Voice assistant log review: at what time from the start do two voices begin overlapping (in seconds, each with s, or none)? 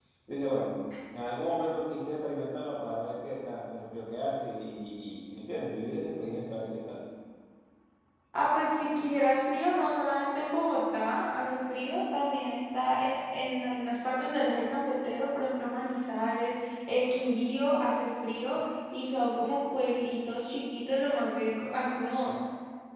none